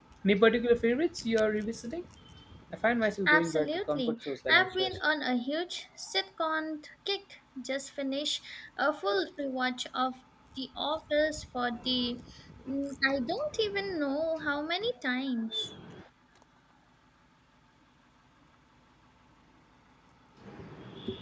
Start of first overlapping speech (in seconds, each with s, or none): 3.3 s